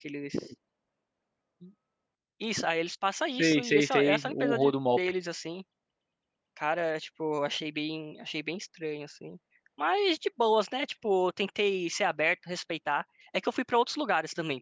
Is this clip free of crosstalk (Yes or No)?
No